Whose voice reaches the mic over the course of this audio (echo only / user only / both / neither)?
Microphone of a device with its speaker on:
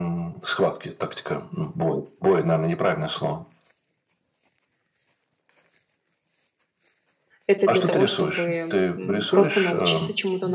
both